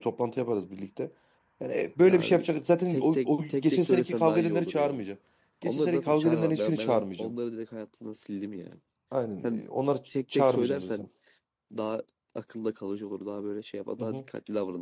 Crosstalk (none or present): present